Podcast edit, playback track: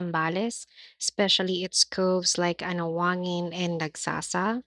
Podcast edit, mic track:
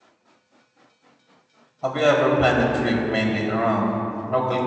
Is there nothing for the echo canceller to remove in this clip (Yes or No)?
Yes